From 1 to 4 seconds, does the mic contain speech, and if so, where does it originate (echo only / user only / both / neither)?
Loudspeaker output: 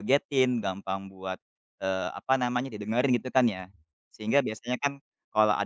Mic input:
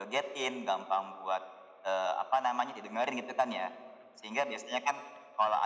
echo only